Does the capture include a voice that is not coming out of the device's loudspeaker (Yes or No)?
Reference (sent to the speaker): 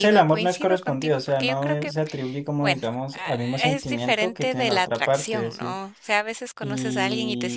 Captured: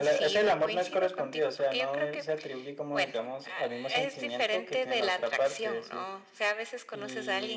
No